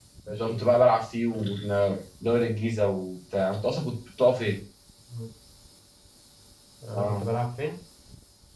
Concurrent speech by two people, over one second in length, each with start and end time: none

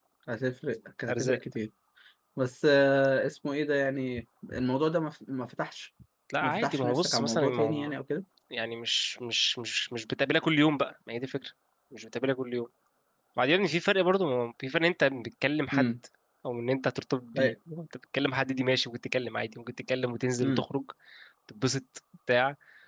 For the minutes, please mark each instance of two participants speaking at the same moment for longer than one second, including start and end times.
6.4-7.9

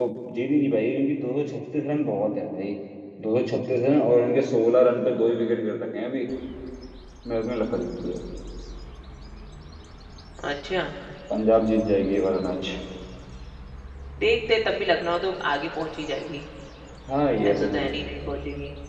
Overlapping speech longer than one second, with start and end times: none

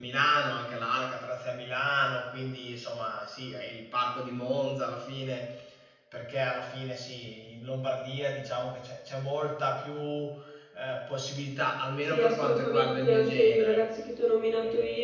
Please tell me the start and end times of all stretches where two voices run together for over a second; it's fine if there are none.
12.1-13.8

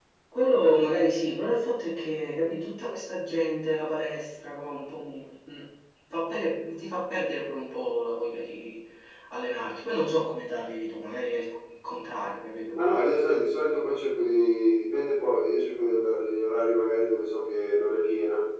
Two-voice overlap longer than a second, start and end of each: none

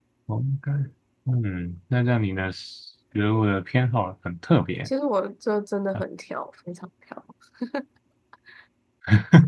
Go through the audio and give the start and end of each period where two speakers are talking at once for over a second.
none

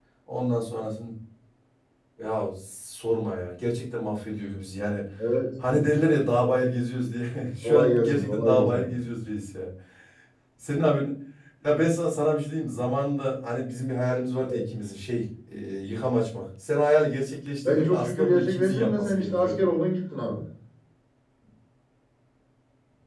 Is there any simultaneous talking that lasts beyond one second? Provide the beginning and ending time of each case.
7.6-8.9, 17.6-19.6

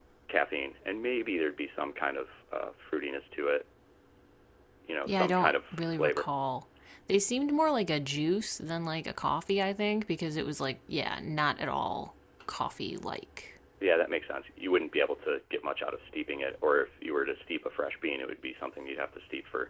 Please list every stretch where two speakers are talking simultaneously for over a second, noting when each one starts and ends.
5.1-6.3

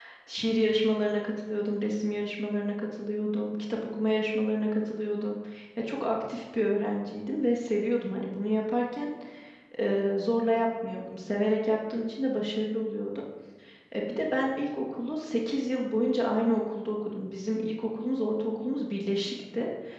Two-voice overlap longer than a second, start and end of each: none

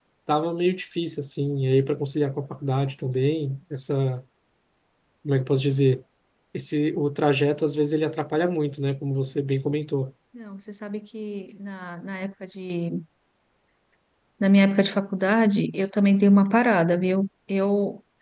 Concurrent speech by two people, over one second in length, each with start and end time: none

